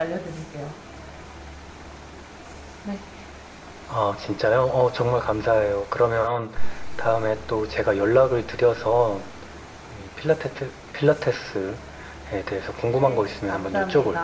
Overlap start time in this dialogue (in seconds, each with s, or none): 13.0 s